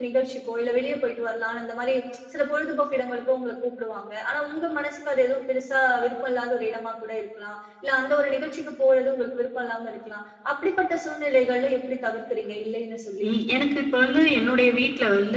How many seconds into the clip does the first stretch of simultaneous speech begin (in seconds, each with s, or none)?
none